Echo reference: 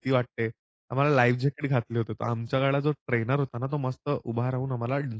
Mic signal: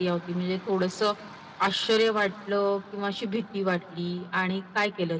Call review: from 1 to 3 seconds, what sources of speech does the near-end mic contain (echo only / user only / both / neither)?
user only